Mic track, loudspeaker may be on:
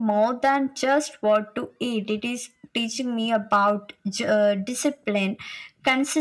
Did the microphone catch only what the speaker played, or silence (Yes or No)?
Yes